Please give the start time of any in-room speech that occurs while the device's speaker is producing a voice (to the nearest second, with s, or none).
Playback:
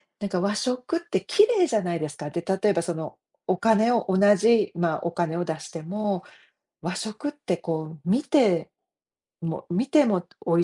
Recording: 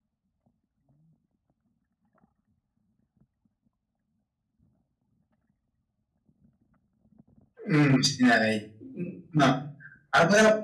8 s